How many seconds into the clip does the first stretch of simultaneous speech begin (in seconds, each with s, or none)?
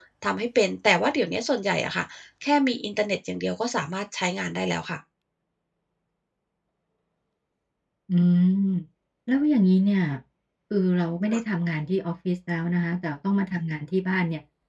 none